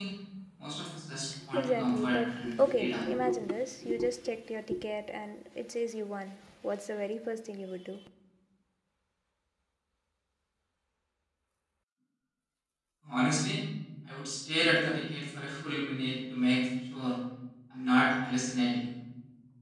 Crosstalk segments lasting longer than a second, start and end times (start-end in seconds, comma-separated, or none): 1.6-3.1